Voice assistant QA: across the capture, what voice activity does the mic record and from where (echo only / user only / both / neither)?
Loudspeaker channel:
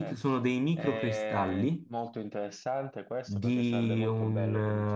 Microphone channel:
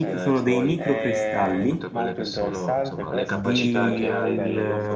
both